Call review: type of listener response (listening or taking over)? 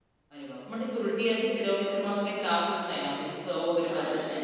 taking over